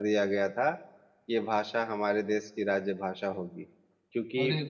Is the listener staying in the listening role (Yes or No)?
Yes